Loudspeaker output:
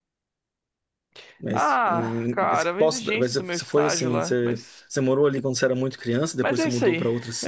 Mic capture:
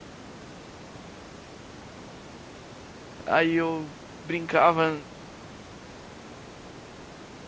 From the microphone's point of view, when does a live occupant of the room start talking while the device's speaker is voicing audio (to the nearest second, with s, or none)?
3 s